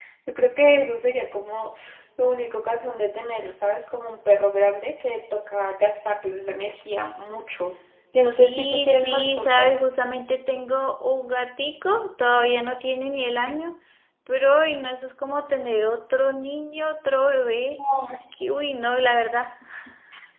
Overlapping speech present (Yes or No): Yes